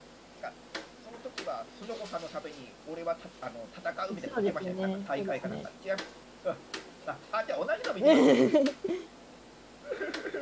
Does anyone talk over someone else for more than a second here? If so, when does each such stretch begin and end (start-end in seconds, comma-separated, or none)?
4.2-5.7